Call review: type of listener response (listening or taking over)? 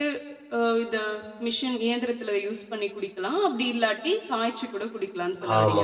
taking over